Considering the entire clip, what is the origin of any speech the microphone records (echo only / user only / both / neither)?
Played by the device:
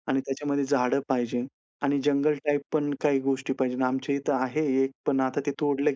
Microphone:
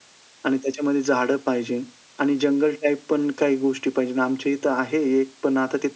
echo only